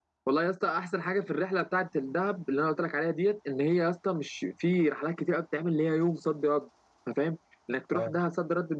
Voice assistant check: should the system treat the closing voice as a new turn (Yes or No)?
No